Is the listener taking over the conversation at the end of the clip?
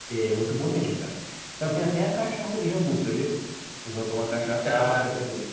Yes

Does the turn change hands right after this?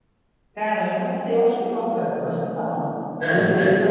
Yes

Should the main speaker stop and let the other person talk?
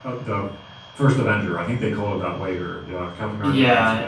Yes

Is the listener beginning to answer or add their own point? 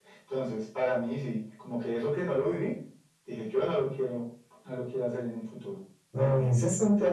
Yes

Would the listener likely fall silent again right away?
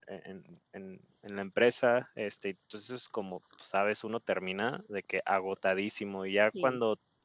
Yes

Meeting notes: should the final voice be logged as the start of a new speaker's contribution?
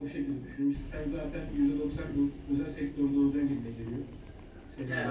Yes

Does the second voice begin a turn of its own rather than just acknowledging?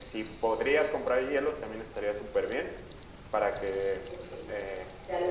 Yes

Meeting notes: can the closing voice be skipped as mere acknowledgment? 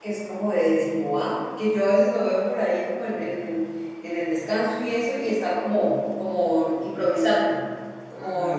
No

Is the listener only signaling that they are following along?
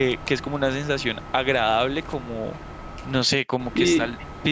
Yes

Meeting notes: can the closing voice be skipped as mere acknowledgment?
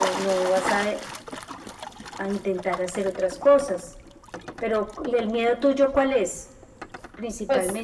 No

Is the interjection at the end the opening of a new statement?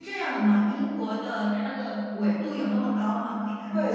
Yes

